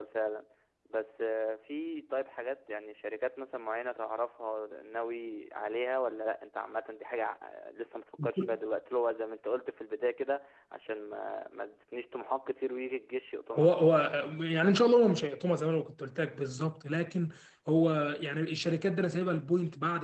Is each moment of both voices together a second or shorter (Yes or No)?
Yes